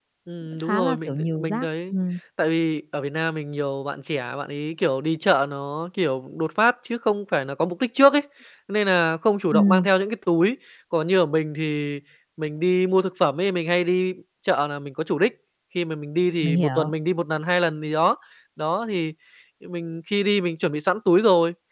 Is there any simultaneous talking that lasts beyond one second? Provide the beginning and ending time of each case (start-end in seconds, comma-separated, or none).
0.7-1.9